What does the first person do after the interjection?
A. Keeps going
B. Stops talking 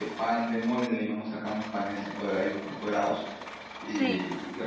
A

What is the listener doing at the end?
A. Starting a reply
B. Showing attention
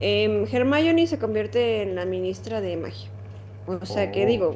B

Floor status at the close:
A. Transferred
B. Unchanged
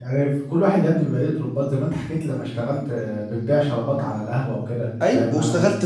A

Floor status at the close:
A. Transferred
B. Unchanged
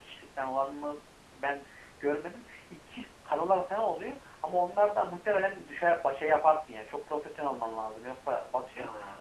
A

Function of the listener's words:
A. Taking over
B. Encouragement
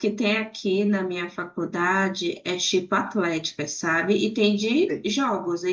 B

